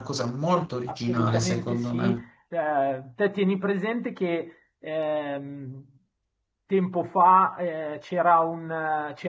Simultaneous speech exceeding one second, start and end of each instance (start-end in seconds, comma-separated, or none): 0.9-2.2